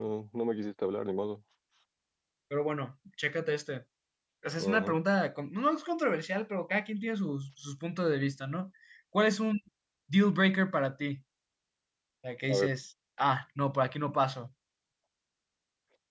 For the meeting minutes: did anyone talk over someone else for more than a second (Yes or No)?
No